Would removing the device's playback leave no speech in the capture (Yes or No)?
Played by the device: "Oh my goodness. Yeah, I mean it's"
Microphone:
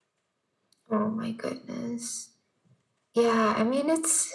Yes